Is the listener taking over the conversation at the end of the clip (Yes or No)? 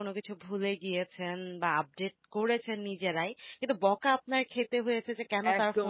Yes